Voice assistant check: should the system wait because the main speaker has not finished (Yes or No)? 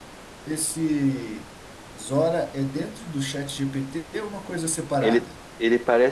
No